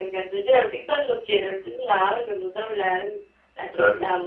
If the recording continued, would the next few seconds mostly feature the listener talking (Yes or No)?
Yes